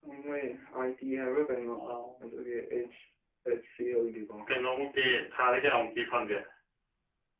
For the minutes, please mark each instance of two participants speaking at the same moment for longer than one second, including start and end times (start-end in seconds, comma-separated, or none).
none